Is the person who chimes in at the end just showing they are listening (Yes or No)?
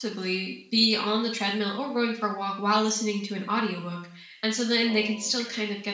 Yes